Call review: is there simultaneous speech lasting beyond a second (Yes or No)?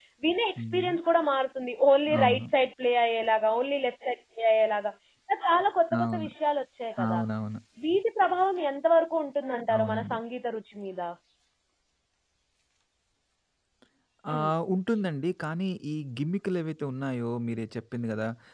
No